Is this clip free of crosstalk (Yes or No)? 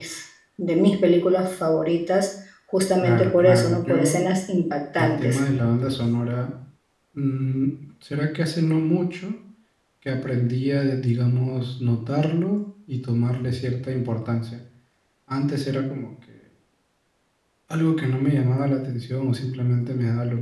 No